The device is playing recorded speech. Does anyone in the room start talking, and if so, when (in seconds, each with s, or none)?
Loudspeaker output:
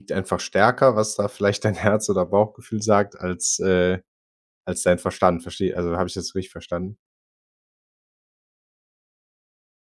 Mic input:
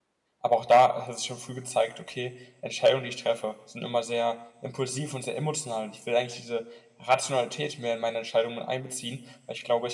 0.4 s